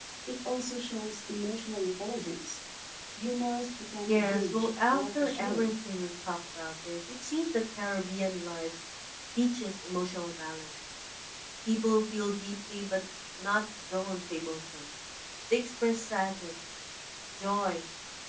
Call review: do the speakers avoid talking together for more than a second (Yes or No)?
No